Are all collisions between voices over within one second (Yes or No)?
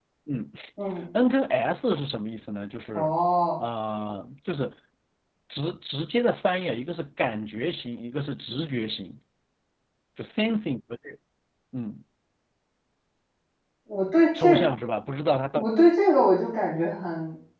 Yes